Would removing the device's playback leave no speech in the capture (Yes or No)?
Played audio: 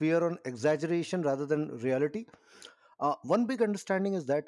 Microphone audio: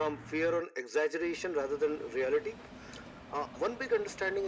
Yes